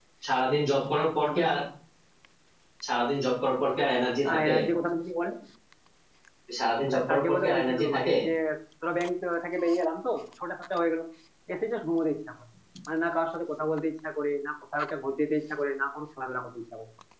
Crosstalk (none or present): present